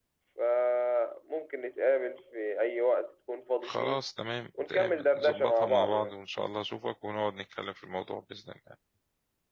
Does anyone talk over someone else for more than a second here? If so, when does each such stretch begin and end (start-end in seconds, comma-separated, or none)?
4.7-6.1